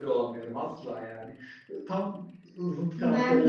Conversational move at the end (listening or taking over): taking over